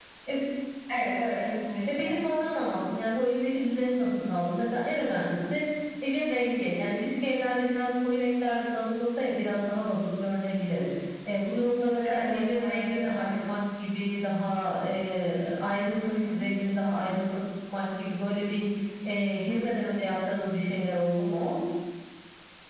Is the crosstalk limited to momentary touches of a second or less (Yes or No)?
No